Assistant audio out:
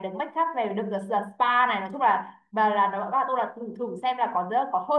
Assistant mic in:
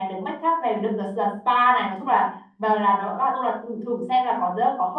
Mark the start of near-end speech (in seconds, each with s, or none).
none